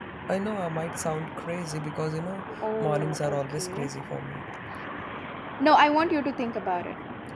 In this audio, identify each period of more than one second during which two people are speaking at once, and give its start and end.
2.6-3.9

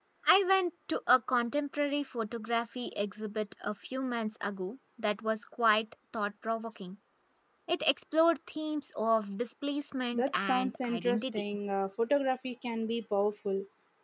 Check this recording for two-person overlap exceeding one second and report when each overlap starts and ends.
10.1-11.4

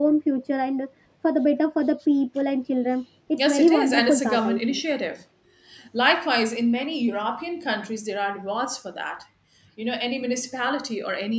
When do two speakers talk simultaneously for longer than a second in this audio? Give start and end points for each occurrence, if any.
3.4-4.8

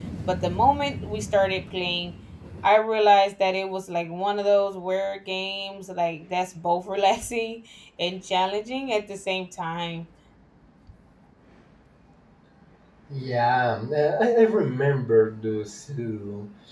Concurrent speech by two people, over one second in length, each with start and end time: none

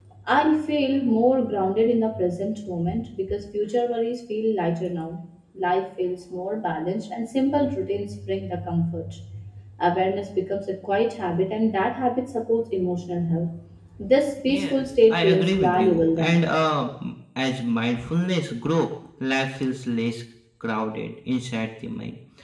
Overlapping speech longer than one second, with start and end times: 14.4-16.4

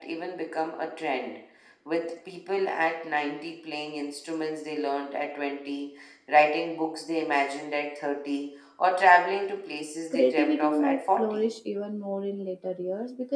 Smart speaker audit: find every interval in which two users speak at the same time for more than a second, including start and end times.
10.1-11.5

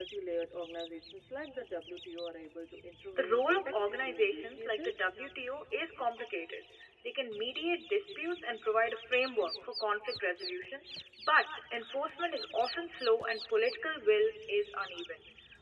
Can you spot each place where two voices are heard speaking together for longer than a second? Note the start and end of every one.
3.1-5.1

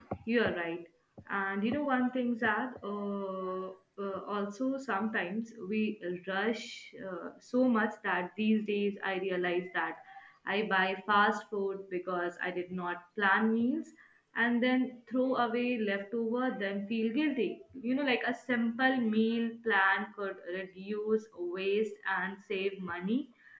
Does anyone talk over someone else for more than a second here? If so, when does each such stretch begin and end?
none

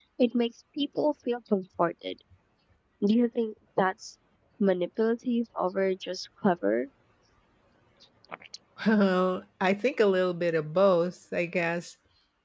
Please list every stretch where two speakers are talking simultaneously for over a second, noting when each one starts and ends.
none

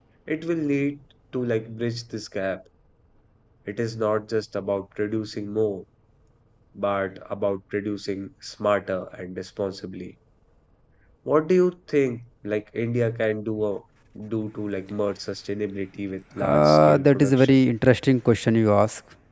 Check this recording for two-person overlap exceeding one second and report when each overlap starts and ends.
16.4-17.6

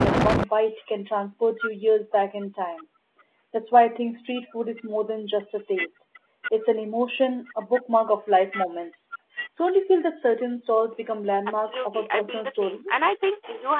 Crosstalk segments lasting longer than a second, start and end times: 11.5-13.1

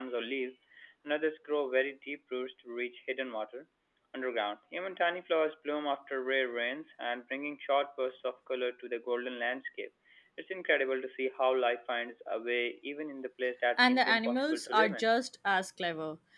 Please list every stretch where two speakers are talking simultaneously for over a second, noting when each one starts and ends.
13.8-15.0

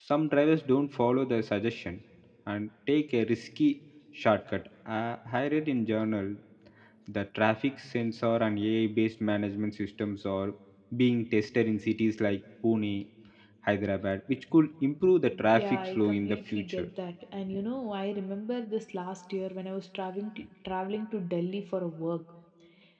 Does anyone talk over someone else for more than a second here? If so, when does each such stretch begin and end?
15.5-16.9

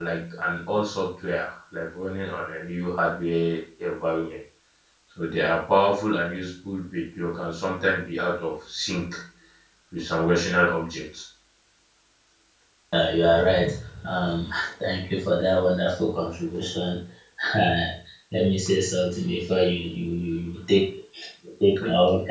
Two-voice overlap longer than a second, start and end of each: none

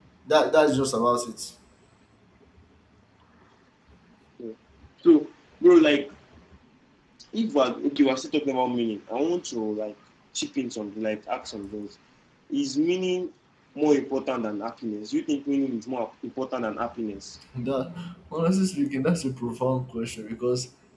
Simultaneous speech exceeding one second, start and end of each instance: none

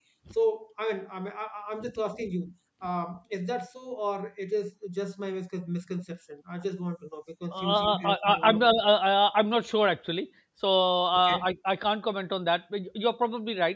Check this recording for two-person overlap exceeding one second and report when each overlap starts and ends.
7.5-8.8

